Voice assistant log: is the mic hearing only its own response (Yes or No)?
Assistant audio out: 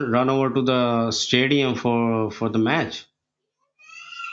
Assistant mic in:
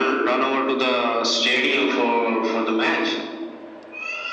Yes